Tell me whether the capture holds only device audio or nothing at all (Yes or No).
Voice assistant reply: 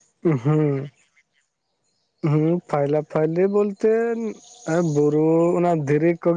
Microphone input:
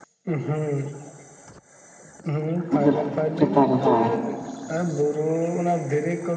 No